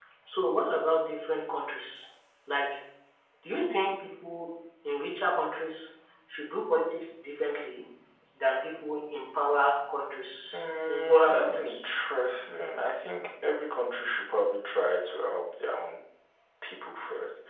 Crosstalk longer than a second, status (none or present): present